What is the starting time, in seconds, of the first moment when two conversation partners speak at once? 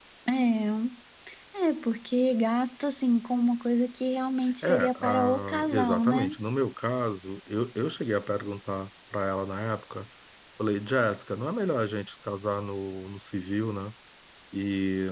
4.6 s

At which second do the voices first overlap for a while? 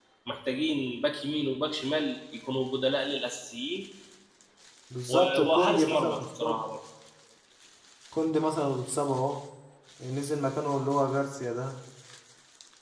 5.1 s

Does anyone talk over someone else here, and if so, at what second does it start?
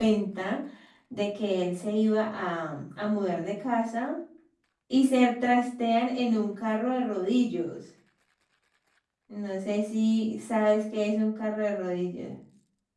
none

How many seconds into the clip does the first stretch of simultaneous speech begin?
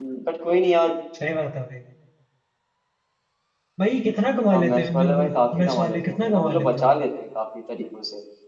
4.5 s

